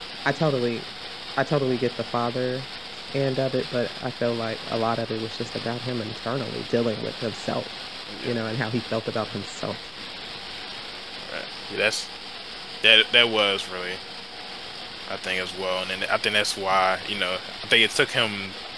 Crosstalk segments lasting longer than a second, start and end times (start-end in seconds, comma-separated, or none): none